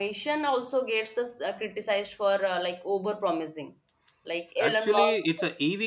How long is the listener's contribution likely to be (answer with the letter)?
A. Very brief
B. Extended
B